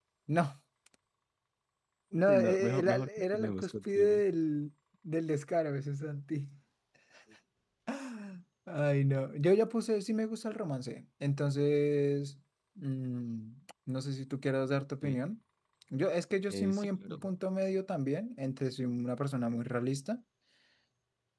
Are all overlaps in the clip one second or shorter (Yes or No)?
No